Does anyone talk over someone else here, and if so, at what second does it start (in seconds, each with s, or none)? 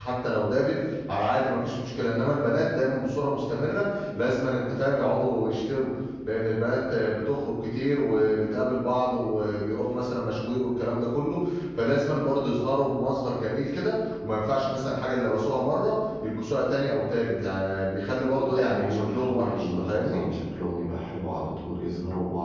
18.3 s